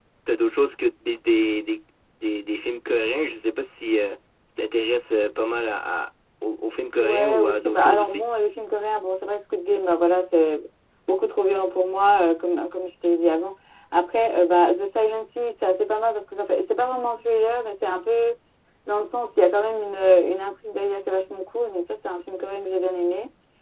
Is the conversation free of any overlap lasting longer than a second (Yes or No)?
No